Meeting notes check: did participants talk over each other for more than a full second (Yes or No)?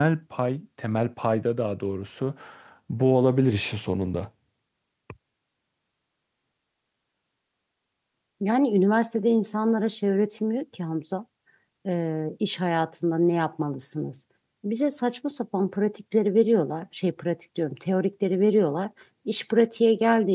No